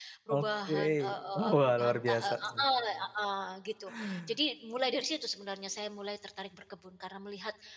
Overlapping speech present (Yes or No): Yes